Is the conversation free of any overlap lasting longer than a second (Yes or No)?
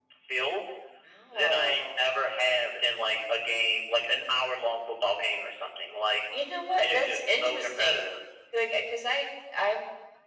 No